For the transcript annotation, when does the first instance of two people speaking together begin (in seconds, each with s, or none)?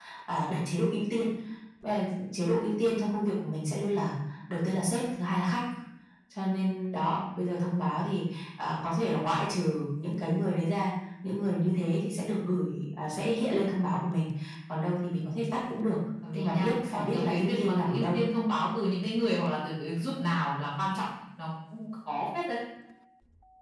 16.2 s